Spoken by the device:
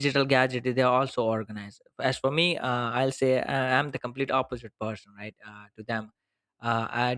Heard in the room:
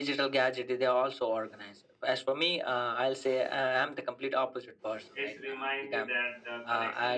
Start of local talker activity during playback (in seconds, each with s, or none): 5.2 s